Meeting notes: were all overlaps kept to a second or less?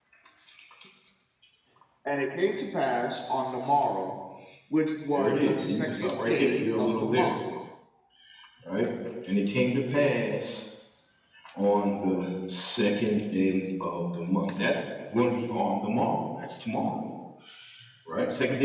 No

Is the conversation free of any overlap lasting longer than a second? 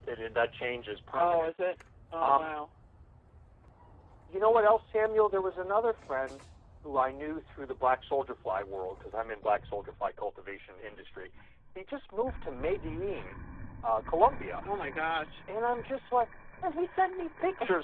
Yes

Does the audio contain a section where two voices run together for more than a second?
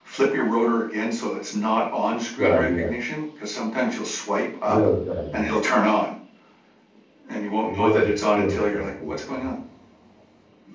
Yes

